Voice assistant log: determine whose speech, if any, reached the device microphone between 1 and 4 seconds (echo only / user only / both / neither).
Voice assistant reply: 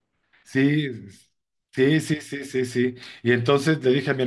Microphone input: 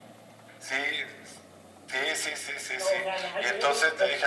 both